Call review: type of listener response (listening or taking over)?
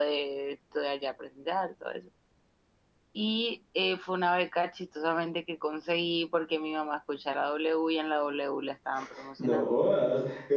taking over